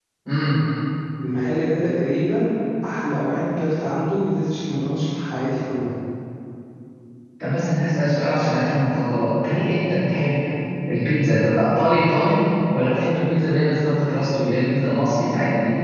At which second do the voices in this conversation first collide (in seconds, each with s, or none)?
none